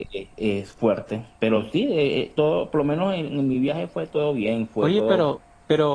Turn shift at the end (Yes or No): Yes